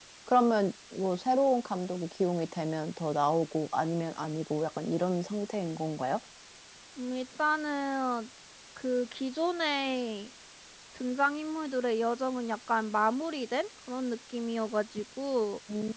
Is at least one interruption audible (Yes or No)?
No